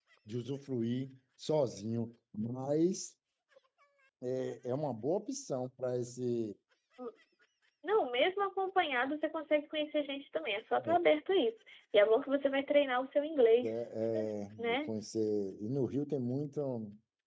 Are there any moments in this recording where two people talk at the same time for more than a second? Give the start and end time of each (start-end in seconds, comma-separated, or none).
none